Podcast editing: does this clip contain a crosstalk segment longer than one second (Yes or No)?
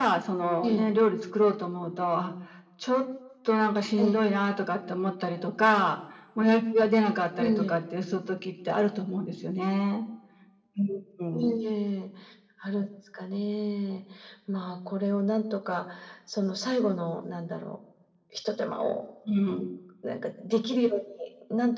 No